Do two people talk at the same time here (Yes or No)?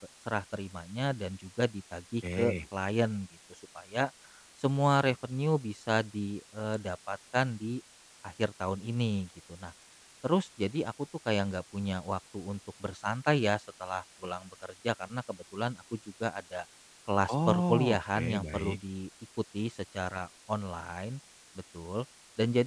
Yes